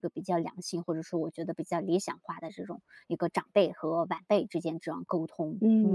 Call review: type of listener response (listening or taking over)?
taking over